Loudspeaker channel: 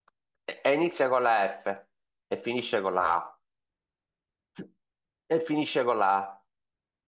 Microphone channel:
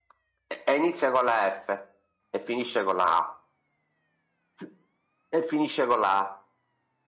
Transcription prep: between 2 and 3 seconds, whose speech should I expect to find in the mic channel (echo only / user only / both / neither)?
echo only